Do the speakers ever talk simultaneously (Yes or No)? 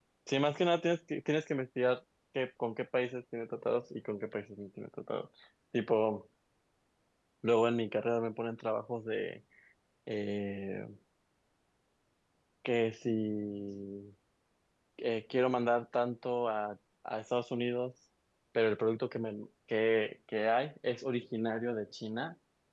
No